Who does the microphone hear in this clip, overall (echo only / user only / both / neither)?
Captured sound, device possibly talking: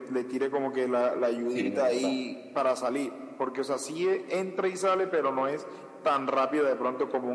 both